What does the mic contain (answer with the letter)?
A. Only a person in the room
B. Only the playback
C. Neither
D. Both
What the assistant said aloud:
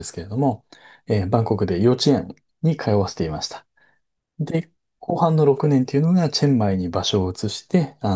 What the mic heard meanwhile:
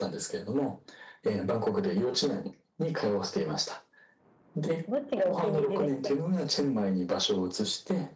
D